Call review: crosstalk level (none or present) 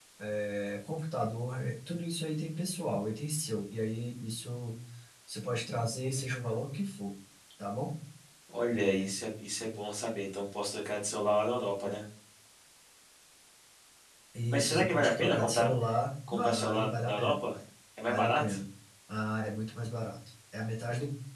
present